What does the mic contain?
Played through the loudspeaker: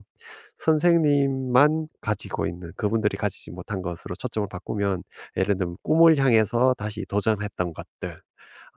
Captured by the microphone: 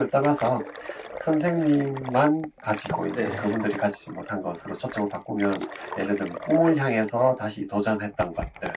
both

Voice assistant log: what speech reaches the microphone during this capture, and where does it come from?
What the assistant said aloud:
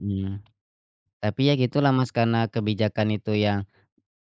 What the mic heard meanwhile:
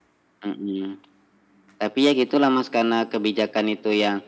echo only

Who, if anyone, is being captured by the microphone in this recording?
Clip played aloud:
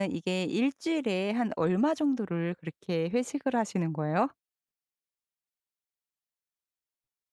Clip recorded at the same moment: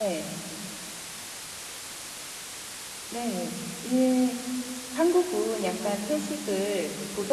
user only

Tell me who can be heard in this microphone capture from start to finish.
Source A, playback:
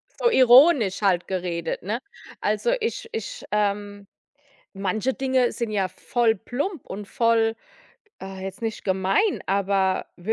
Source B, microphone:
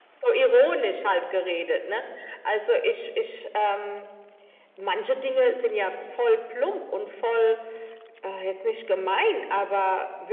echo only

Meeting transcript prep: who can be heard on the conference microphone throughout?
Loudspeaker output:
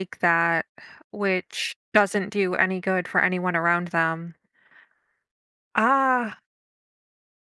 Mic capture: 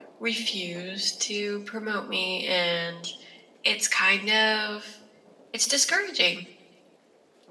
user only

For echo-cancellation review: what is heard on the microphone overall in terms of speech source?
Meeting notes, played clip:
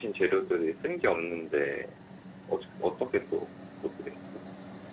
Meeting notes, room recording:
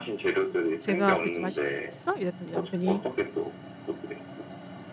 both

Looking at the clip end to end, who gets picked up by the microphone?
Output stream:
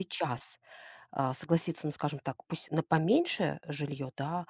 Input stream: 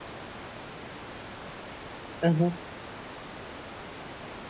user only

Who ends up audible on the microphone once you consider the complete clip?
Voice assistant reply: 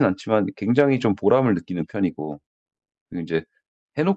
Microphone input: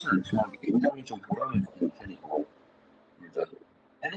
echo only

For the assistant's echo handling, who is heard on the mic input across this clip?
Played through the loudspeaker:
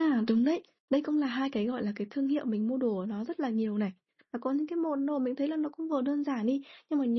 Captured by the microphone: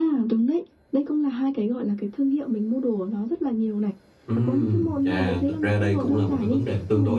both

